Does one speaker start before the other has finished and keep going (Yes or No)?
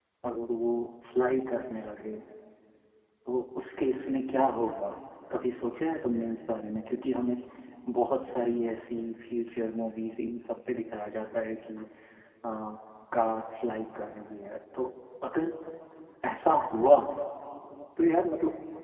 No